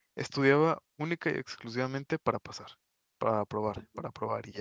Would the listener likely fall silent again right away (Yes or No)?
Yes